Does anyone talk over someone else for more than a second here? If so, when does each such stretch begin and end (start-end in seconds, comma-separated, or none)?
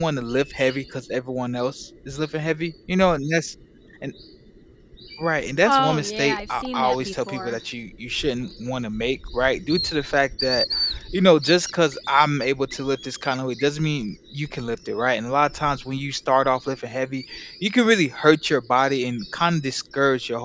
5.7-7.6